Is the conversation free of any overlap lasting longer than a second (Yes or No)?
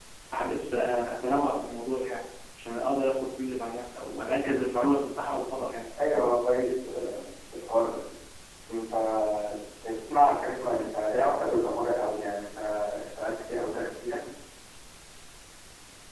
Yes